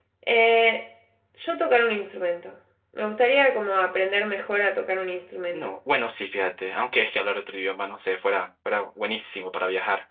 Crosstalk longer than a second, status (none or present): none